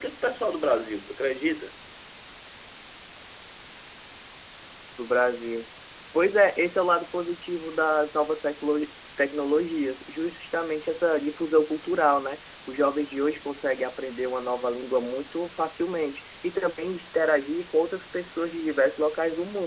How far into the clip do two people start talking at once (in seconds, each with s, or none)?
none